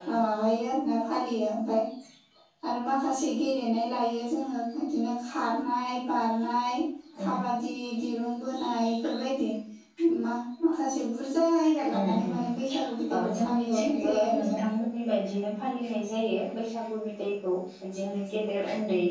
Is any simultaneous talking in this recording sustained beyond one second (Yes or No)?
Yes